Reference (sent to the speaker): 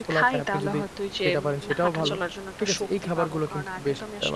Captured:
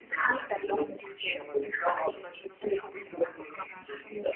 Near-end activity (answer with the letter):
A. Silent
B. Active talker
A